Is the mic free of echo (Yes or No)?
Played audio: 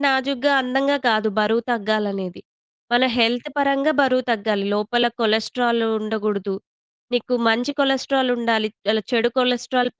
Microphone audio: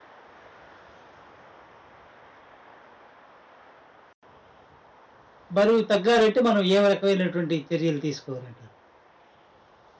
Yes